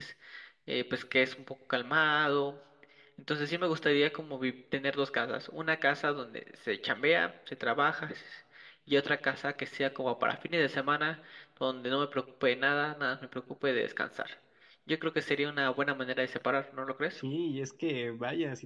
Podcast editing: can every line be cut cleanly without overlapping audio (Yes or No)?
Yes